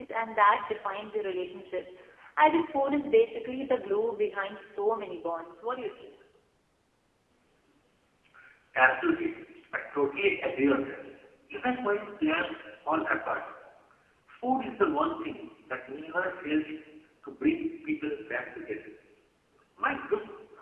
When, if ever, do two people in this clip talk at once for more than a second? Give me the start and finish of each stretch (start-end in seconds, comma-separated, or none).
none